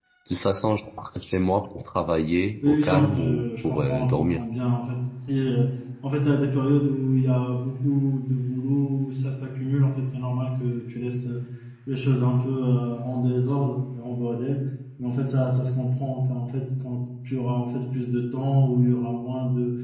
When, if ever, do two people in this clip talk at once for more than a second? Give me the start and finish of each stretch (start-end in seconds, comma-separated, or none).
2.6-4.4